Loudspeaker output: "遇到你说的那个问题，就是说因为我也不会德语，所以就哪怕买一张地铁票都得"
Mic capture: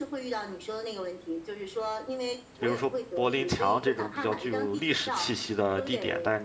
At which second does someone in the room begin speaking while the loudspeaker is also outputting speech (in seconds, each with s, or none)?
2.6 s